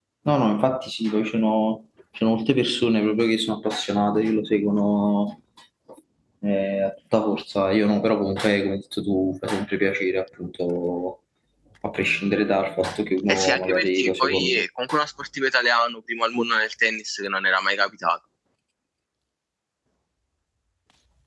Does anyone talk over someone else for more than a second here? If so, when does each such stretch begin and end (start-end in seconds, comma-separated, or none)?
13.3-14.6